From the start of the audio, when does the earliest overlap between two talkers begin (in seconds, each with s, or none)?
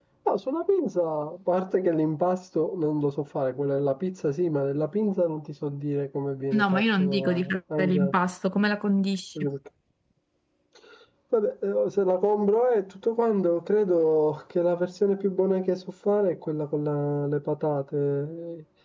6.5 s